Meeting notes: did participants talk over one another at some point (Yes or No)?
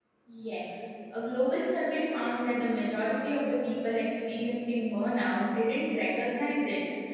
No